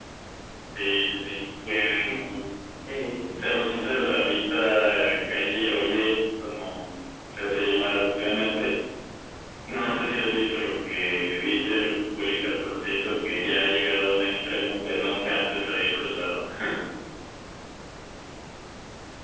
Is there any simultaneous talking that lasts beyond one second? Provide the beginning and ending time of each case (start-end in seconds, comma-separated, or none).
none